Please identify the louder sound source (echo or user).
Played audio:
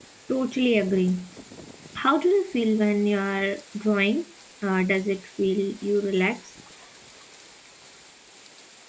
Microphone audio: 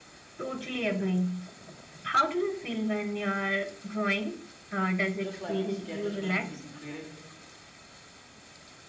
echo